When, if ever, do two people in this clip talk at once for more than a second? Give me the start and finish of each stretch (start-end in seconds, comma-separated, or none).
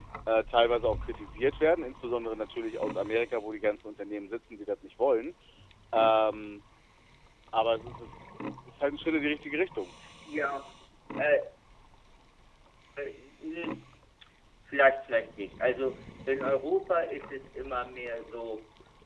none